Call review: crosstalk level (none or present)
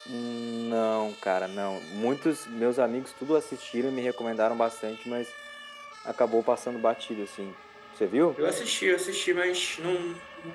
none